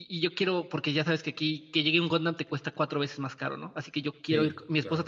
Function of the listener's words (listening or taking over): listening